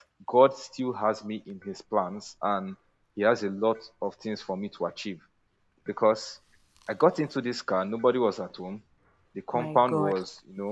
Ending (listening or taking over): listening